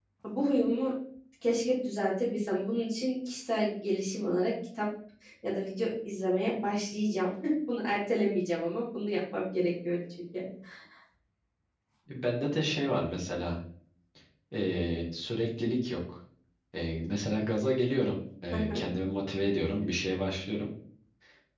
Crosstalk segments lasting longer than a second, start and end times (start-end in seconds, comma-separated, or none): none